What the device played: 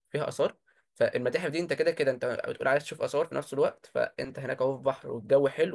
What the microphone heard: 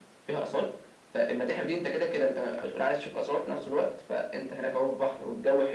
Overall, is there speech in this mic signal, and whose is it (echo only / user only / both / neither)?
echo only